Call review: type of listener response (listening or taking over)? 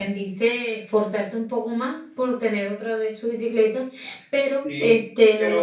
taking over